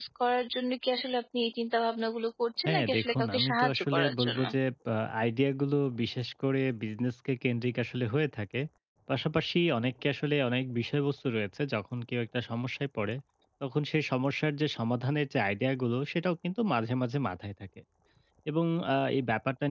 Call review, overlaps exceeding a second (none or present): present